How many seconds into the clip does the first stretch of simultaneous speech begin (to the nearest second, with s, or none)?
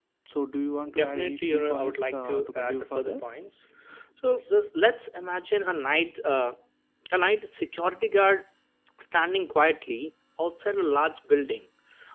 1 s